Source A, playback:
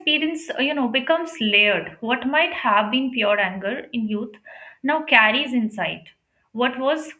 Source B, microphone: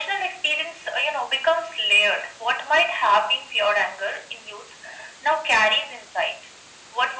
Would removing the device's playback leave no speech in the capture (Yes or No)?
Yes